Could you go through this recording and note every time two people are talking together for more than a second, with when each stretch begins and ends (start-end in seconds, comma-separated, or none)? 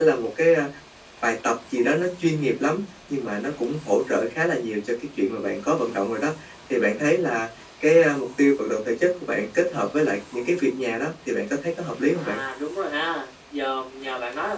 none